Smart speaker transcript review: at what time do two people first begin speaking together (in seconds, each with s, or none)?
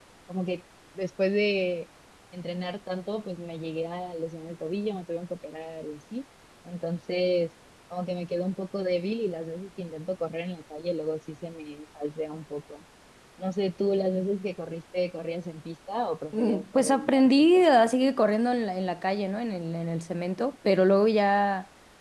16.3 s